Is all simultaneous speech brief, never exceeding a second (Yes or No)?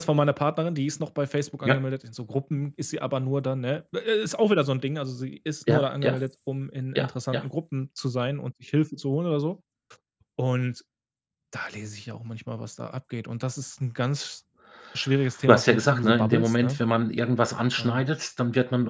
No